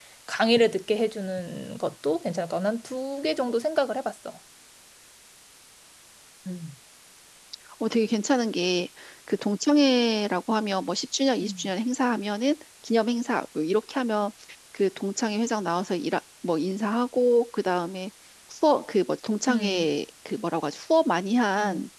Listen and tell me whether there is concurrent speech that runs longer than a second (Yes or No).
No